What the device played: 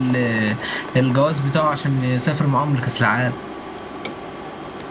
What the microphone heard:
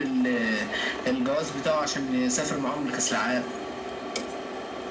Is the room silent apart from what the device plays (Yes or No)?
Yes